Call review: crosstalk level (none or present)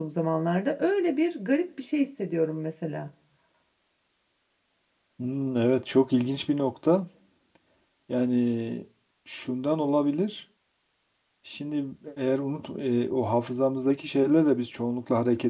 none